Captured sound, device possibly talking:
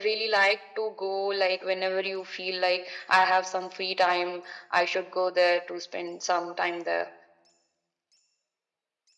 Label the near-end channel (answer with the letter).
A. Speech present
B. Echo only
B